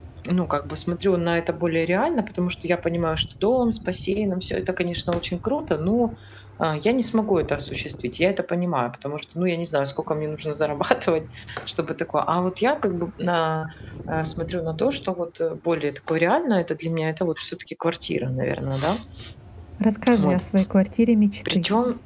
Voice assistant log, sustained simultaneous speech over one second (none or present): none